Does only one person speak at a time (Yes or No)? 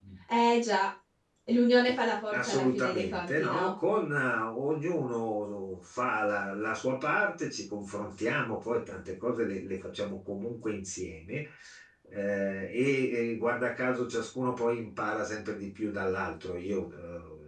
No